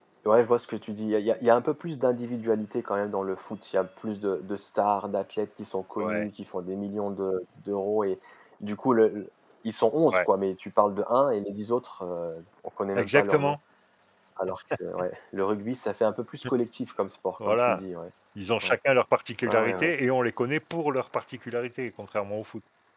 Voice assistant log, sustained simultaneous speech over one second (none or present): none